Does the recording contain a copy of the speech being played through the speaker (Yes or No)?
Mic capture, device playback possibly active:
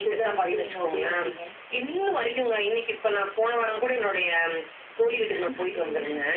Yes